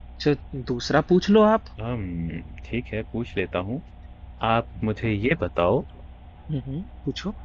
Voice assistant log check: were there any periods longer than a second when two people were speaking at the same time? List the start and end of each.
none

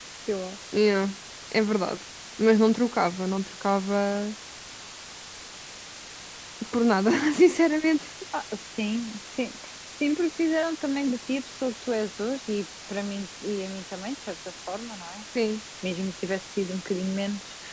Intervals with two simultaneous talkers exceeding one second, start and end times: none

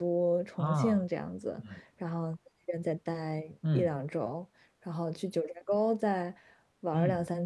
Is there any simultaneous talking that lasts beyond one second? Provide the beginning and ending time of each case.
none

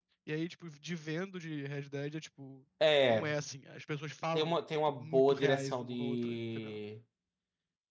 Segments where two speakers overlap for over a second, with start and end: 4.9-6.8

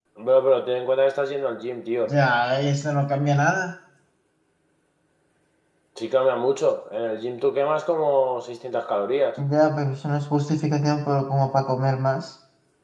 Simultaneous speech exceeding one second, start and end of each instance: none

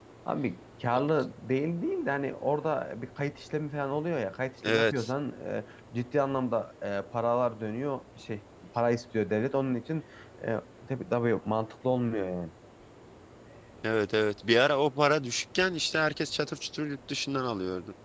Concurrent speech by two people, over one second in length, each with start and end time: none

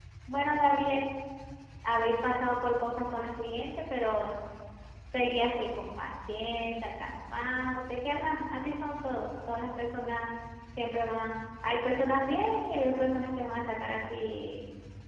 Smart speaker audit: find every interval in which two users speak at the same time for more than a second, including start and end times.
none

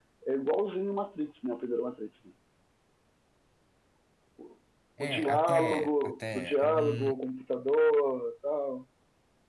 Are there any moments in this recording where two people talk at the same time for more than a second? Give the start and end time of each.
5.0-7.1

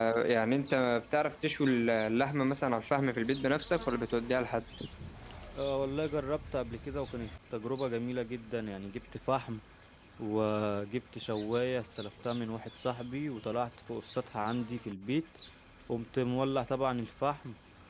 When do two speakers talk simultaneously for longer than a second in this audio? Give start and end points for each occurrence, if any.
none

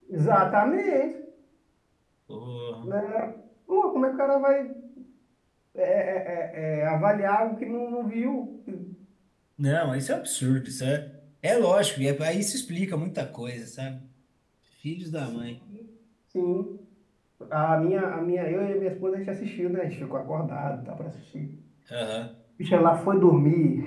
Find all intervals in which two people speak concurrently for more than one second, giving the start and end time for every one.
none

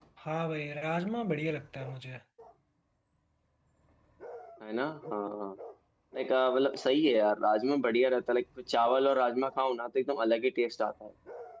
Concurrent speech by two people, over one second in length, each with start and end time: none

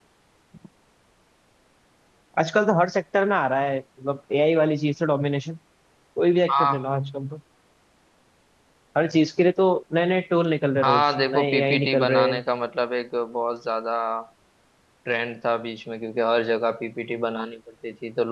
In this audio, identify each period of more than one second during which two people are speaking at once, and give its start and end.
10.8-12.4

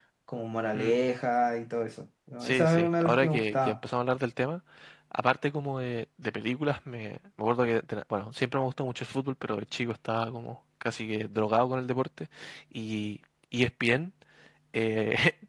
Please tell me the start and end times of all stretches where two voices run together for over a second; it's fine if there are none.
2.4-3.8

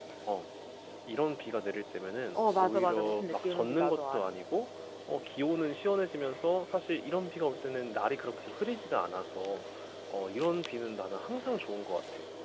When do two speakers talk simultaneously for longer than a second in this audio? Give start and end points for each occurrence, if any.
2.3-4.3

